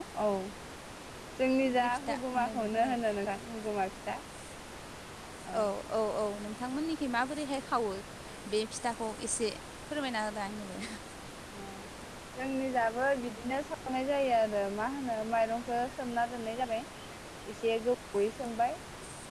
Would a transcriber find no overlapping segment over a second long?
No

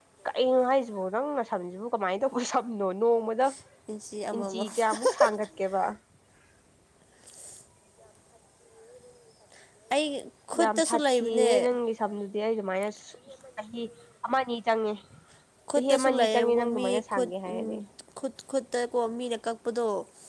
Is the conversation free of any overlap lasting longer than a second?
No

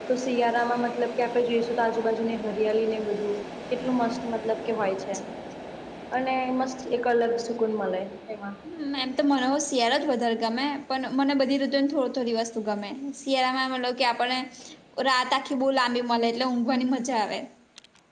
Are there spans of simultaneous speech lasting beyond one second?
No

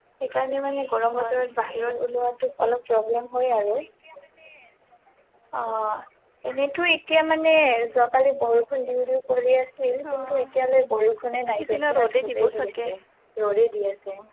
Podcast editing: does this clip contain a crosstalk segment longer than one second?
Yes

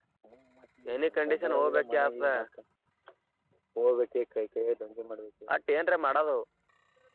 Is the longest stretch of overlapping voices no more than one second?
No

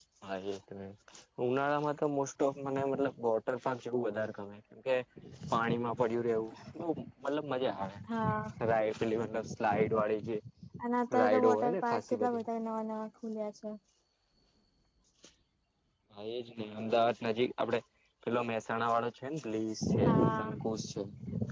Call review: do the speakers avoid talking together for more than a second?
No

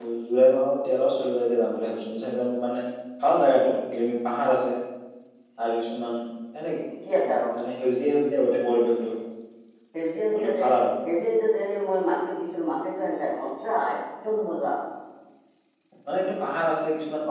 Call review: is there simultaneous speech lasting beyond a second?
No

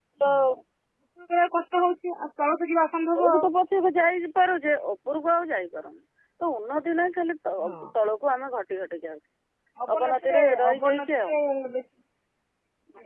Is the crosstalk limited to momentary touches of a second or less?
No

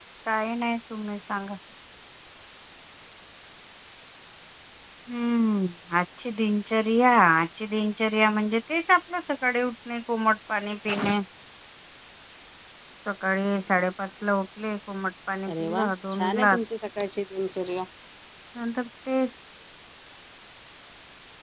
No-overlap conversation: No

